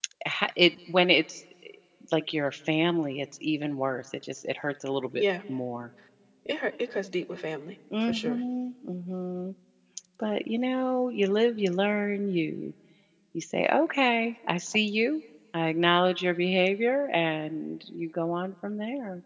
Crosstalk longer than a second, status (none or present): none